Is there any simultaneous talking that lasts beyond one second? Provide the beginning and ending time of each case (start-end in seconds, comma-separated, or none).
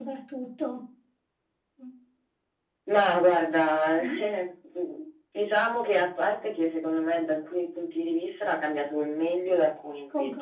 none